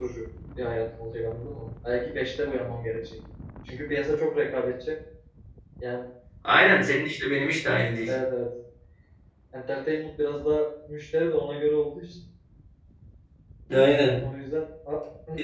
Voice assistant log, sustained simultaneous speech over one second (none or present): none